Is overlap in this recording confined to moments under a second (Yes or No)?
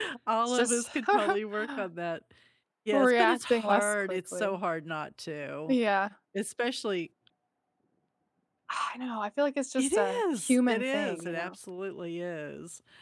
No